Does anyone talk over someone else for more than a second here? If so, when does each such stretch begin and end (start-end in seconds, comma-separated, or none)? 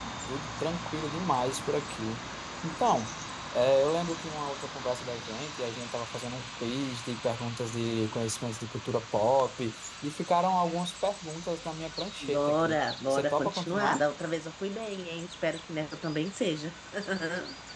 12.3-14.0